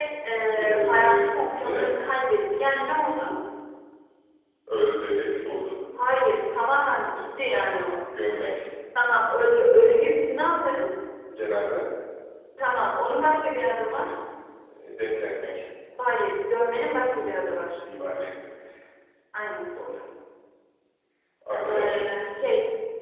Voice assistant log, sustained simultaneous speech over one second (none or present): present